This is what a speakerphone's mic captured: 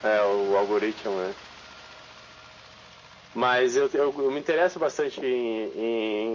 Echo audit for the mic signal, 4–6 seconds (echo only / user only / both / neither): echo only